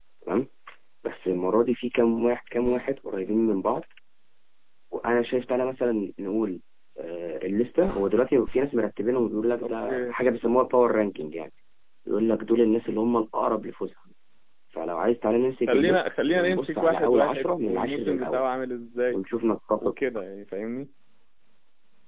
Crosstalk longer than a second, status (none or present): present